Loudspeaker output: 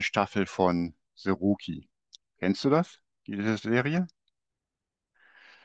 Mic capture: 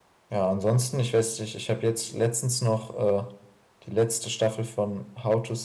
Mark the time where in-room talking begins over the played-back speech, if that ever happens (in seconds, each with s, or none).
0.3 s